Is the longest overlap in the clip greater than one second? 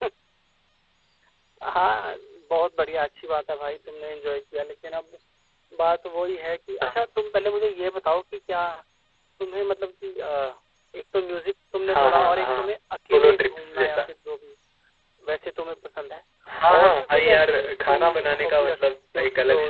Yes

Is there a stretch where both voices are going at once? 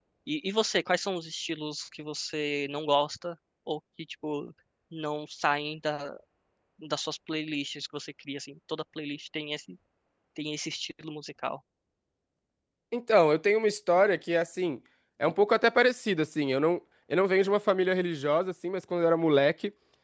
No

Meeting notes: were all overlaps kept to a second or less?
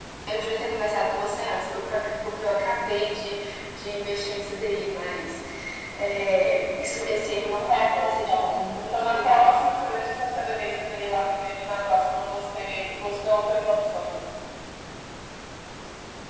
No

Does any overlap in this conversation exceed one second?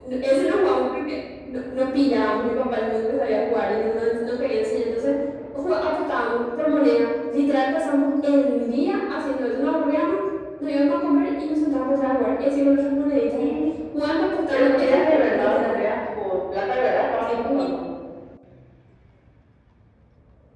Yes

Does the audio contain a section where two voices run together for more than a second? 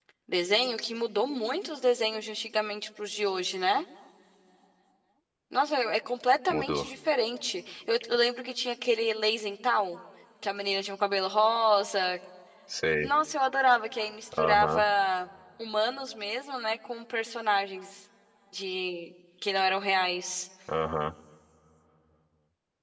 No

